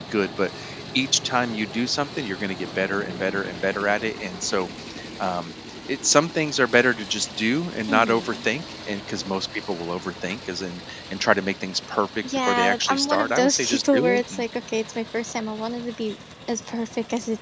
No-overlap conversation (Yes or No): No